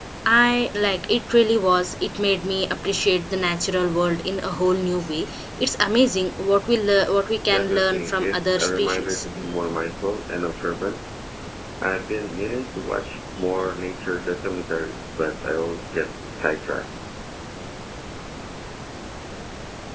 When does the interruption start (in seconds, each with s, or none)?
7.5 s